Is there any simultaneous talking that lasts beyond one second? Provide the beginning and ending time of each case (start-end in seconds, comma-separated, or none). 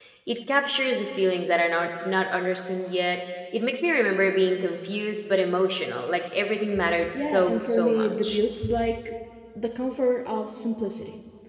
7.1-8.4